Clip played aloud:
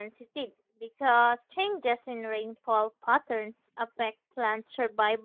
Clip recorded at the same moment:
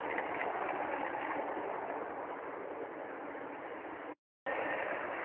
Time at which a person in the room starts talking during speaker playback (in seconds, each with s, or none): none